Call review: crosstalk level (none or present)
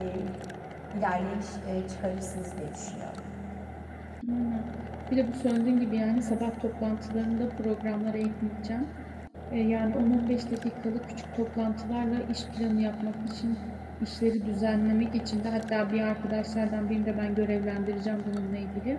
none